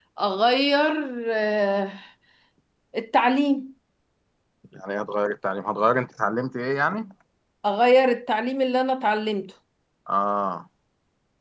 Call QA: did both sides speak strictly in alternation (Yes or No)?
Yes